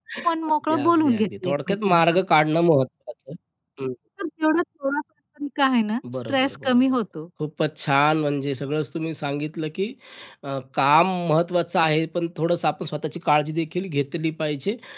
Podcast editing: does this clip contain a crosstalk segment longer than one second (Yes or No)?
Yes